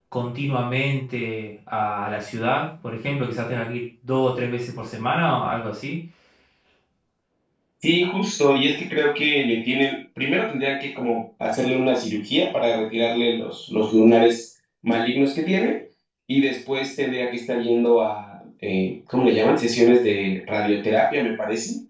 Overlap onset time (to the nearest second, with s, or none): none